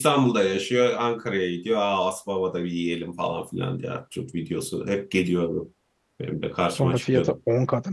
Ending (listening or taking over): taking over